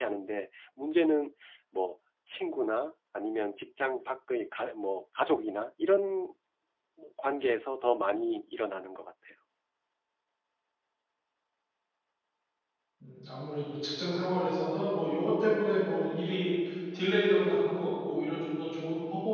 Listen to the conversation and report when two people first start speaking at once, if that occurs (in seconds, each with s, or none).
none